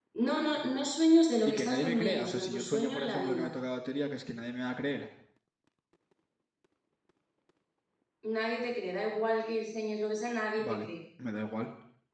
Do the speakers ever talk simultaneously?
Yes, from 1.4 s

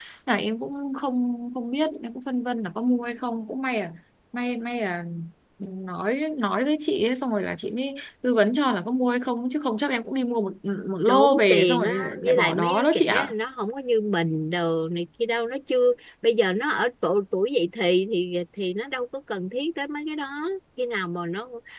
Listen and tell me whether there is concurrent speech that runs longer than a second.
Yes, from 11.1 s

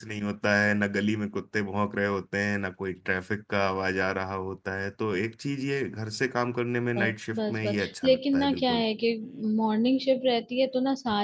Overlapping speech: Yes, from 7.0 s

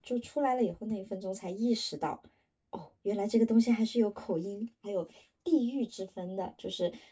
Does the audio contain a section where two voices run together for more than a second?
No

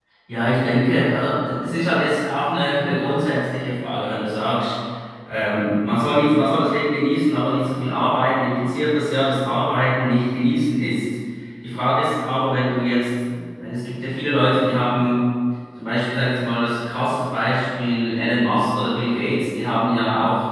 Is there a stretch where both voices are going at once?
No

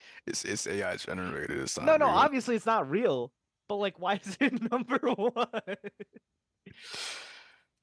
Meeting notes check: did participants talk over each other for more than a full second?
No

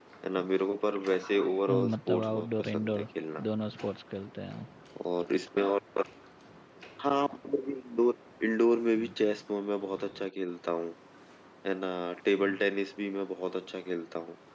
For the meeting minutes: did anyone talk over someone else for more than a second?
Yes, from 1.7 s

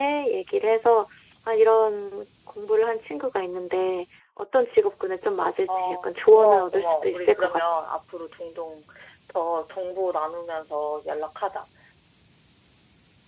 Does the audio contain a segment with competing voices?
Yes, from 5.7 s

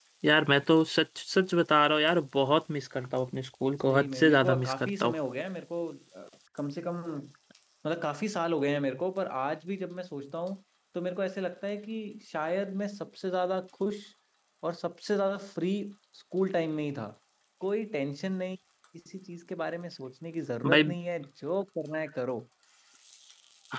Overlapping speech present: Yes, from 3.9 s

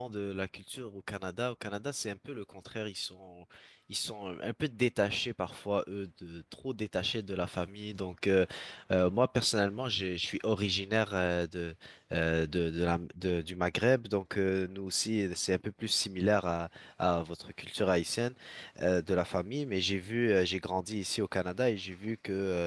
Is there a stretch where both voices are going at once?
No

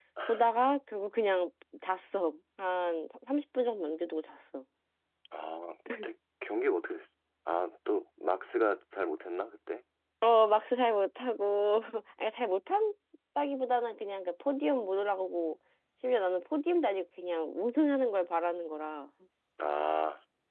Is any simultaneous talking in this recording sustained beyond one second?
No

